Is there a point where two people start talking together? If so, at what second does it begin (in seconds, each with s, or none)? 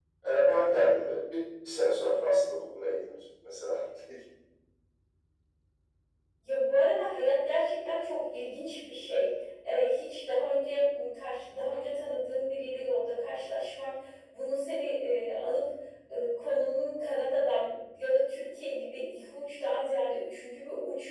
none